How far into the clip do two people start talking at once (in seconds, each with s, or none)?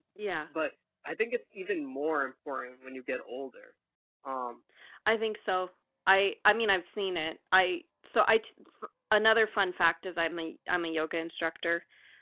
none